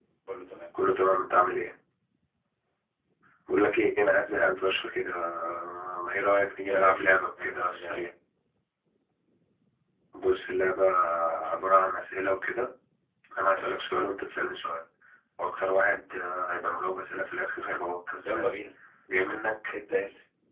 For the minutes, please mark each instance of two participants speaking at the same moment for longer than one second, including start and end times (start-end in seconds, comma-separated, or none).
6.7-8.1